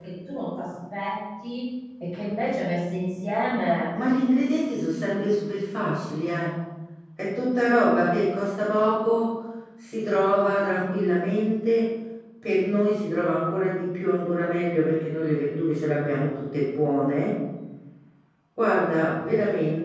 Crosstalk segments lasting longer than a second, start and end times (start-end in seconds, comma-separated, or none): none